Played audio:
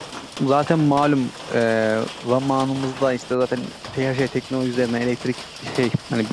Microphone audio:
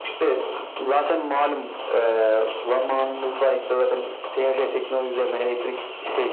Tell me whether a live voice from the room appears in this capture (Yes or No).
No